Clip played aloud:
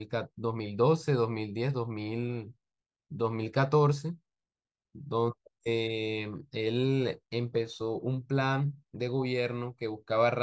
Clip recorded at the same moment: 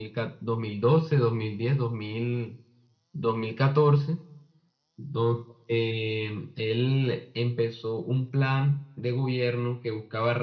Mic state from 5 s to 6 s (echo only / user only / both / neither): echo only